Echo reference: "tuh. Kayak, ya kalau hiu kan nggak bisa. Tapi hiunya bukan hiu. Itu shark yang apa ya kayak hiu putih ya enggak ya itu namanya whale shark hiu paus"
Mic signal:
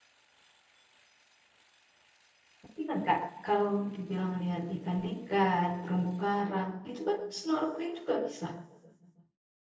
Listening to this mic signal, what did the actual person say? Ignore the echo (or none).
Tapi kan kak, kalau dibilang lihat ikan-ikan, terumbu karang, itu kan snorkeling juga bisa.